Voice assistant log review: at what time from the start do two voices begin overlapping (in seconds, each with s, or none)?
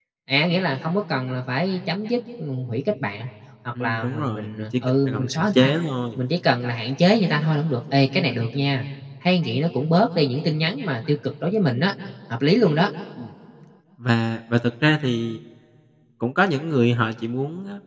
3.8 s